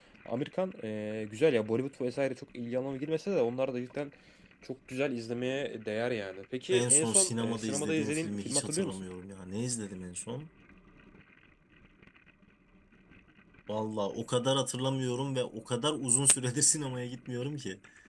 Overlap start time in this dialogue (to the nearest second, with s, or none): 7 s